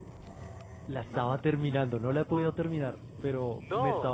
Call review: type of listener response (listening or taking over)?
listening